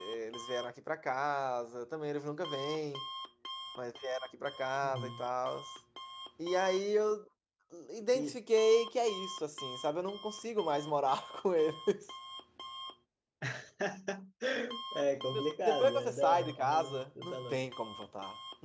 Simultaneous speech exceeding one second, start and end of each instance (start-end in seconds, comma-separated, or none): 15.7-17.6